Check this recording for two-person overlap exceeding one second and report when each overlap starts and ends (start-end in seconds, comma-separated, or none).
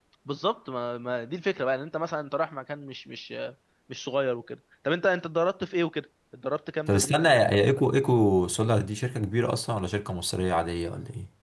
none